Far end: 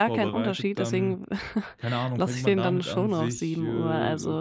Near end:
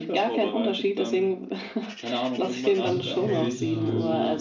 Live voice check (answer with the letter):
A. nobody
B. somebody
B